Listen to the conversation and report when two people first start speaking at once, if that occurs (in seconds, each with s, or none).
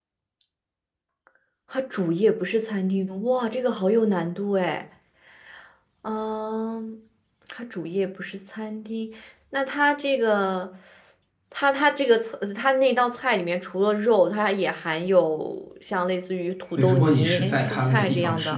16.8 s